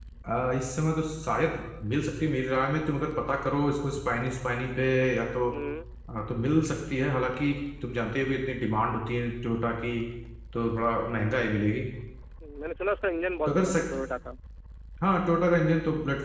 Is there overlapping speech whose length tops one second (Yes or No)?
No